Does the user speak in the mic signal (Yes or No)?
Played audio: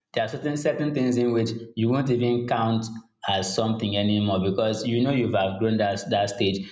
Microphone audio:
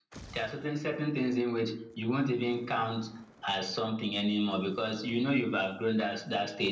No